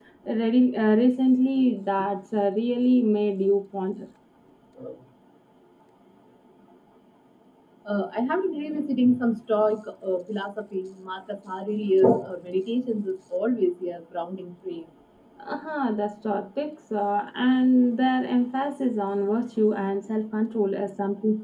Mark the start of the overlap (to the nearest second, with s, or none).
none